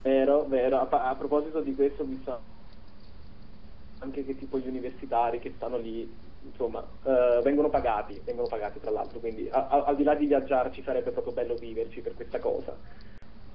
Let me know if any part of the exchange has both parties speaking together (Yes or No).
No